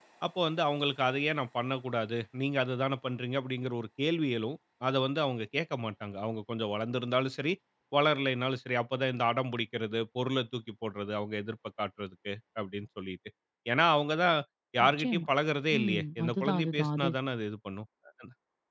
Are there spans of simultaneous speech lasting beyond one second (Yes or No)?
Yes